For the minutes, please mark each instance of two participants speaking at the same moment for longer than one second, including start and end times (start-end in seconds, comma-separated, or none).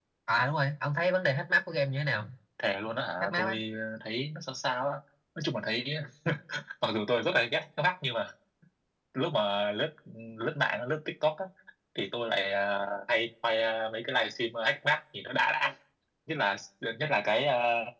none